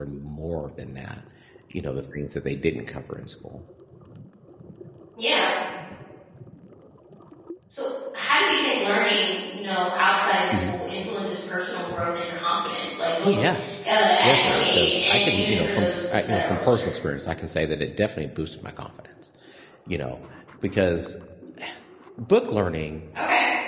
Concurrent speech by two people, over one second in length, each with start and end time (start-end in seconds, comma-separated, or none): 14.2-16.8